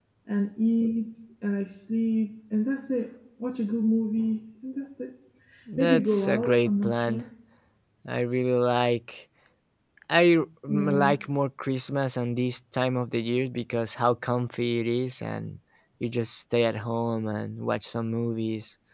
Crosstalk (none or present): present